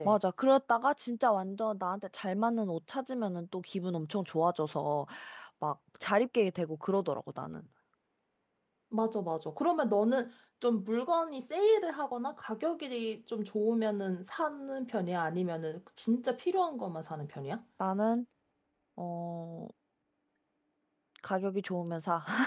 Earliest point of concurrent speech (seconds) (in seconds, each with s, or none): none